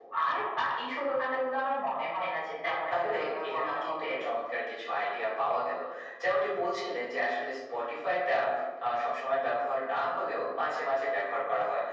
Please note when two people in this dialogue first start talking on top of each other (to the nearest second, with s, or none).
3 s